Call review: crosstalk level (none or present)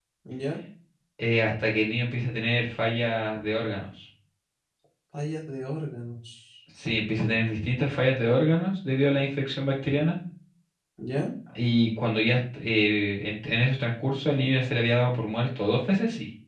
none